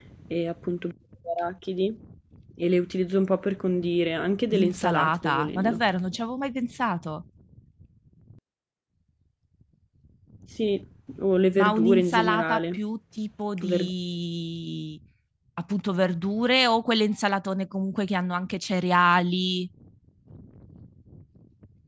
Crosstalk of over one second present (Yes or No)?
Yes